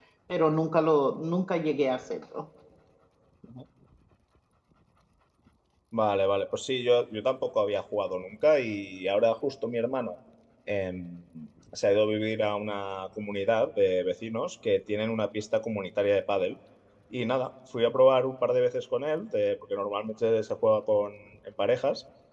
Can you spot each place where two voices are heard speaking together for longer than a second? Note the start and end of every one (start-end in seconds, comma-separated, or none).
none